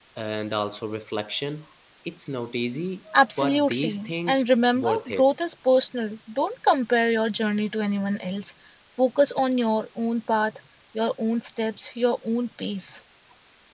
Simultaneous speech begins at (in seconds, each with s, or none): 3.1 s